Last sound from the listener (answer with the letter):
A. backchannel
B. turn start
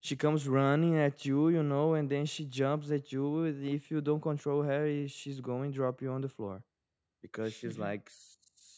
A